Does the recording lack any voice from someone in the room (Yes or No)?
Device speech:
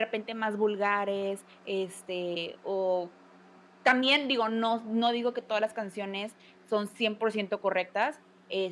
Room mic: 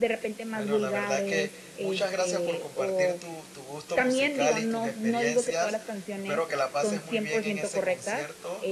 No